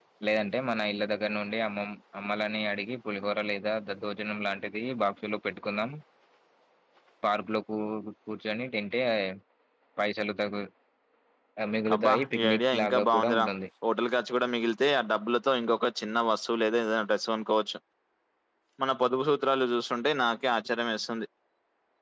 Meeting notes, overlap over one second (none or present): present